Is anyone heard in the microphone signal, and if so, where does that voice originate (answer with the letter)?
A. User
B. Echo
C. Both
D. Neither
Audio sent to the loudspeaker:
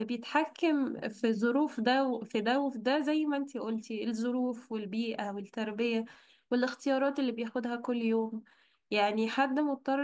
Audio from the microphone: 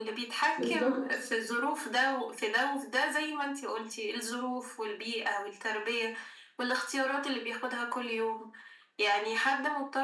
C